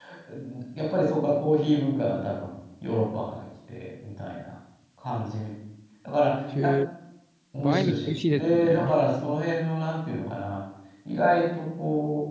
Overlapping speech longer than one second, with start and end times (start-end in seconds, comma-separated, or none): 7.6-8.9